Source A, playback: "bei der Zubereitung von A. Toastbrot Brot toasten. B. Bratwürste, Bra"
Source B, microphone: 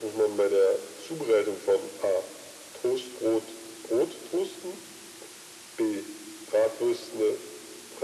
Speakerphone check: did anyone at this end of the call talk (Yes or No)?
No